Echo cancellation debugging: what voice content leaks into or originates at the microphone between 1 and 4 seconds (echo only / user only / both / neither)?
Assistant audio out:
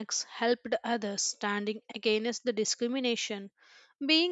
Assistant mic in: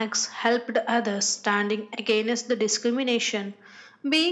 echo only